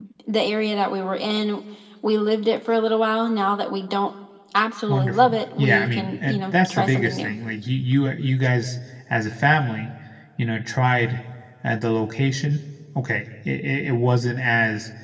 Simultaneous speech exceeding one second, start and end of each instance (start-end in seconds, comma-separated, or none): 4.9-7.4